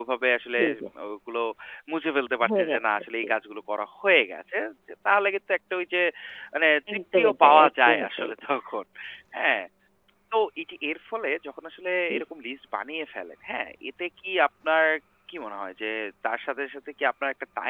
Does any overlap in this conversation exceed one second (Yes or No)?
Yes